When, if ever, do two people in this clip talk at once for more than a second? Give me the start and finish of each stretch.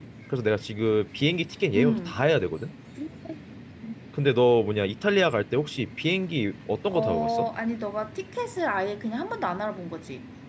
none

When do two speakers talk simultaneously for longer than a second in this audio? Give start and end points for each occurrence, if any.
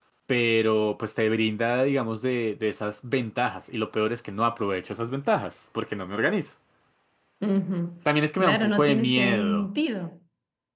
8.4-9.7

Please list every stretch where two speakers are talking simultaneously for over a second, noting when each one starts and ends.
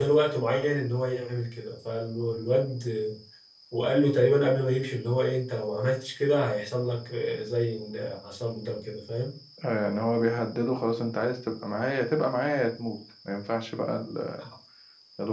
none

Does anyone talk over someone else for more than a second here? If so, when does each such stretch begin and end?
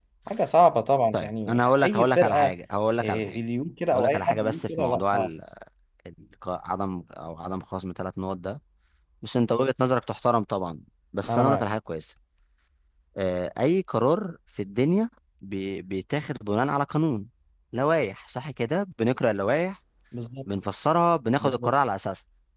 1.1-2.5, 3.9-5.3

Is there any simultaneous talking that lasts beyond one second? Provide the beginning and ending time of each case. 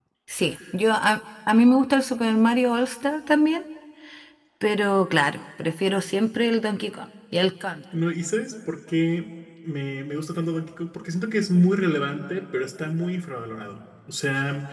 none

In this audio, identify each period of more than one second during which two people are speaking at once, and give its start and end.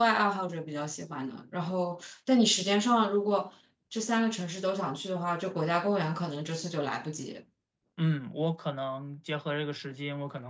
none

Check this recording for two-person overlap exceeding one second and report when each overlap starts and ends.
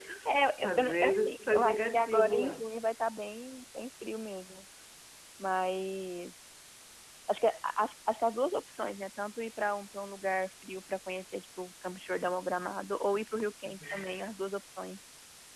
0.6-2.6

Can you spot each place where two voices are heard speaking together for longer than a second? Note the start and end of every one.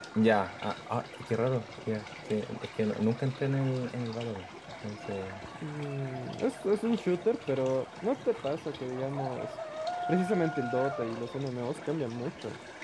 none

